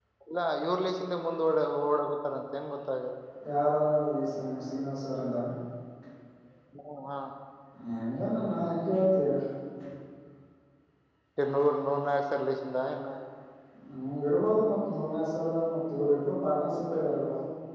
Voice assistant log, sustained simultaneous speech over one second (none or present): none